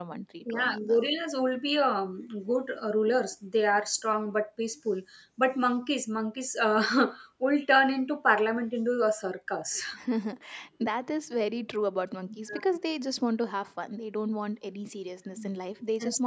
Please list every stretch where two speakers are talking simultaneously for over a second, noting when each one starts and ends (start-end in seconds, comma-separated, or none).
none